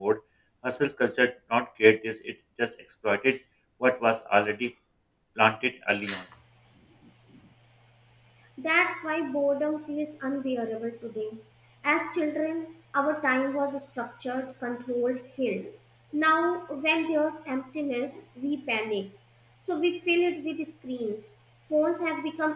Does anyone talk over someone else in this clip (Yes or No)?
No